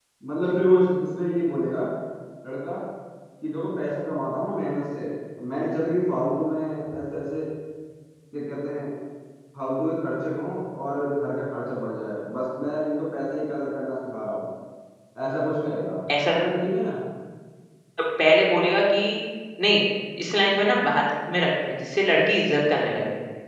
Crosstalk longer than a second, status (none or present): none